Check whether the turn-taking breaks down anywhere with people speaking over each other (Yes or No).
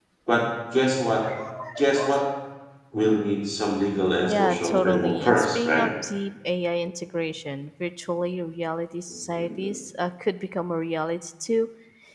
Yes